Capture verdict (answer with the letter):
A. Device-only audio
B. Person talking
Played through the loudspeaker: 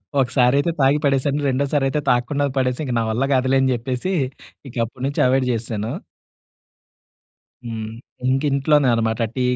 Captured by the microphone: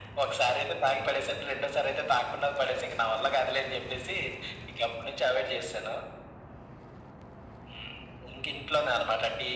A